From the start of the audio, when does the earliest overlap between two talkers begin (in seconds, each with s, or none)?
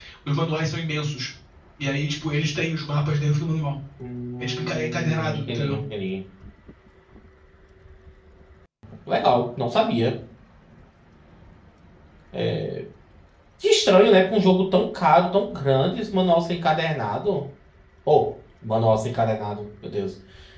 4.4 s